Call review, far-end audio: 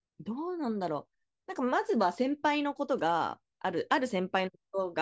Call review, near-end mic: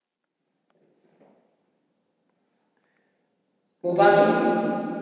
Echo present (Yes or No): No